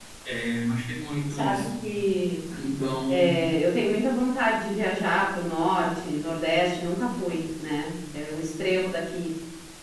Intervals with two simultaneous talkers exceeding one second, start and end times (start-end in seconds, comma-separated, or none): none